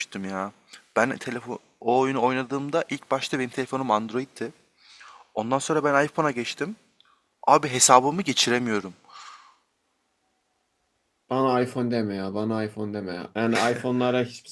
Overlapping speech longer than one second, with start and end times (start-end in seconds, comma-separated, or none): none